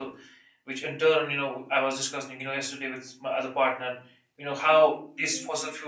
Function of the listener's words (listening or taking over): listening